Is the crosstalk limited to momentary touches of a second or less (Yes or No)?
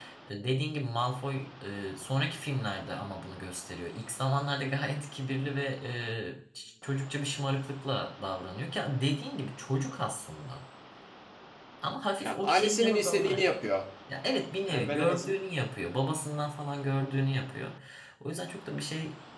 No